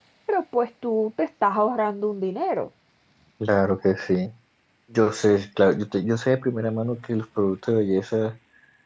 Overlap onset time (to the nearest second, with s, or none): none